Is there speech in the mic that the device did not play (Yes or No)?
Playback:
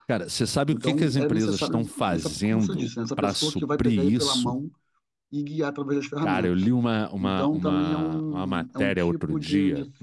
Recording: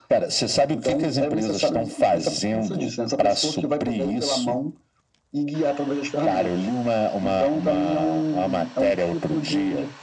No